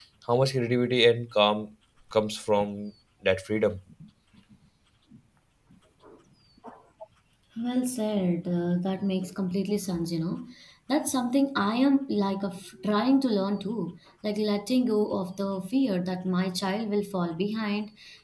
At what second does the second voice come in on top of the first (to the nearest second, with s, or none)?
none